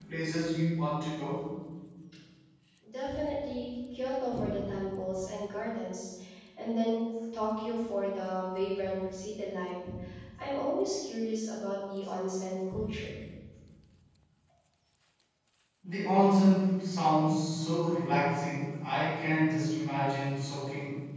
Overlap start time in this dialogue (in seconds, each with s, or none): none